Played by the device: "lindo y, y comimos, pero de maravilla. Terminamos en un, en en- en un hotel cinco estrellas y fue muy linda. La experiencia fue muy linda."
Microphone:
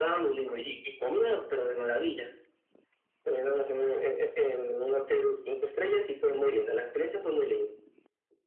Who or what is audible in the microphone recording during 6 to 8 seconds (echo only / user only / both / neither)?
echo only